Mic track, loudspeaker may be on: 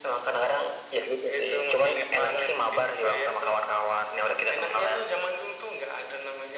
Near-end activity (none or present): none